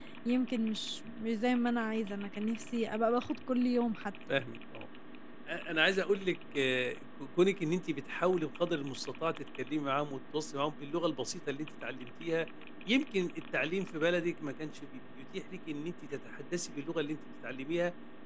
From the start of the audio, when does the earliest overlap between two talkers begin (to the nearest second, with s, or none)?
none